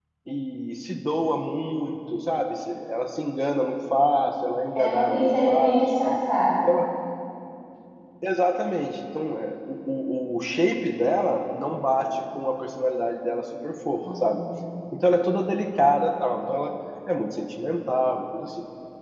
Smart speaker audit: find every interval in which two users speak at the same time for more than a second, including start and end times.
4.8-6.2

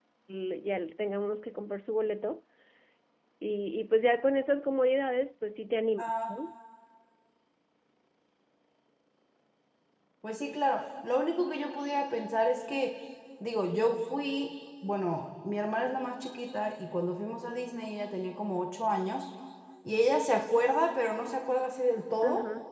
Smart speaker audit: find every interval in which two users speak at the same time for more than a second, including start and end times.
none

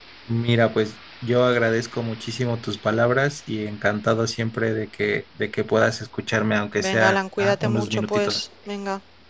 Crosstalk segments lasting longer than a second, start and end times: 6.8-8.4

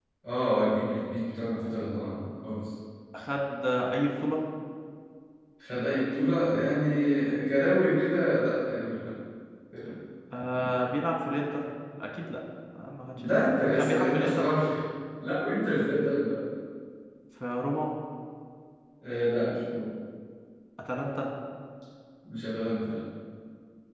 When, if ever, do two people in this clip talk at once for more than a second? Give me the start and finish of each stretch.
13.2-14.5

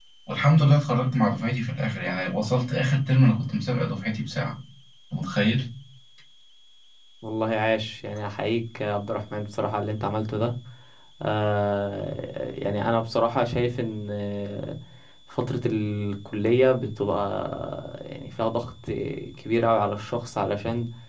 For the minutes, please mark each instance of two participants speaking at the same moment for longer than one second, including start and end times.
none

